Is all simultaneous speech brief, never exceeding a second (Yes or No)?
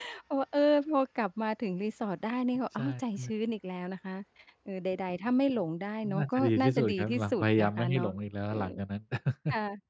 No